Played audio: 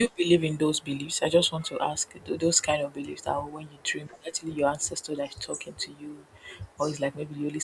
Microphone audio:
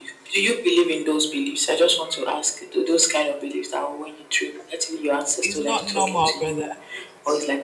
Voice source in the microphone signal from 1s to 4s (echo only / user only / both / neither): echo only